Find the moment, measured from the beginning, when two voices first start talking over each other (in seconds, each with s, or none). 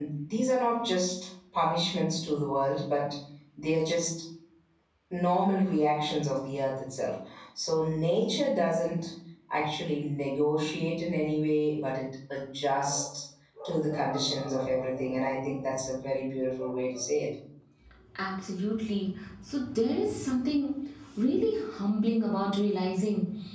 none